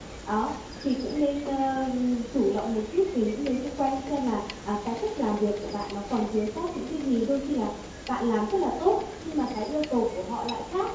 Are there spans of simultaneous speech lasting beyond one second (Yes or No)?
No